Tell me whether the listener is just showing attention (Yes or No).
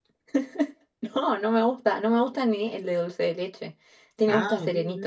No